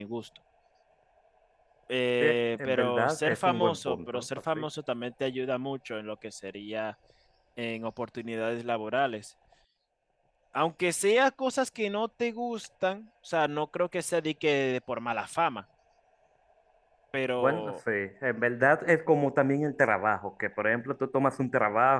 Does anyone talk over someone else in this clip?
Yes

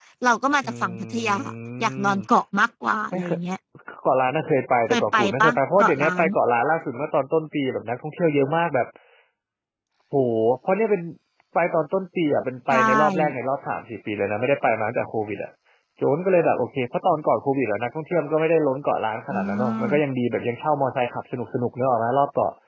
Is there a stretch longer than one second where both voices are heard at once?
Yes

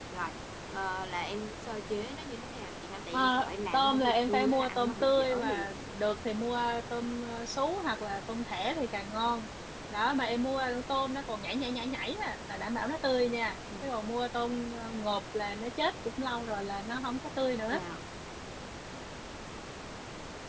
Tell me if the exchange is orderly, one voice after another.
No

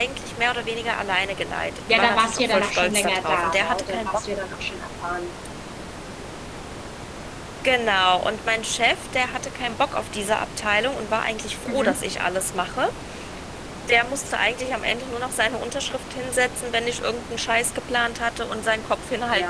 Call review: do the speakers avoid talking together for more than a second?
No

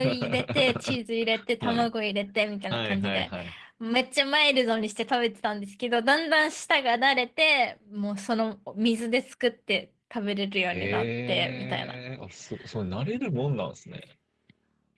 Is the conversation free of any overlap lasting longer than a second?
No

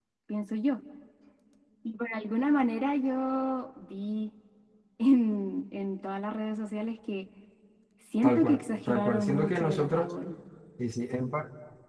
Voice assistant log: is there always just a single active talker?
No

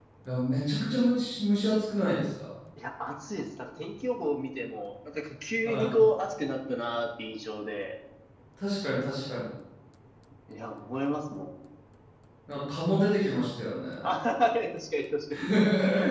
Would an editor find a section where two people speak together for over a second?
No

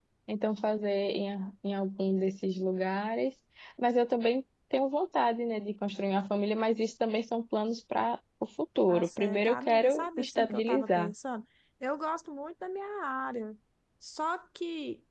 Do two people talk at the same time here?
Yes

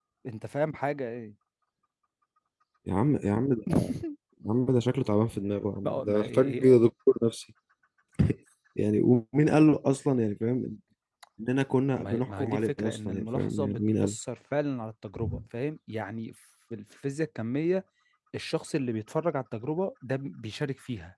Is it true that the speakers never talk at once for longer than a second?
No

